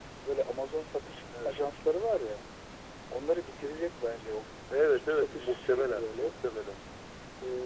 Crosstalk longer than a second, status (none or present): present